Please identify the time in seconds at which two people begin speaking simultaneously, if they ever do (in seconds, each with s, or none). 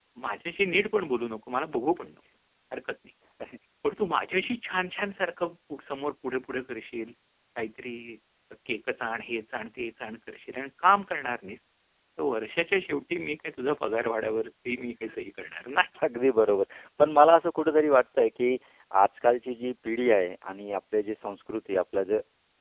none